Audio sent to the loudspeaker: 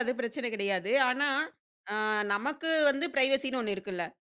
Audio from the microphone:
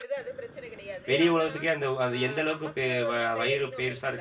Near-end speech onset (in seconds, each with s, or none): 1.1 s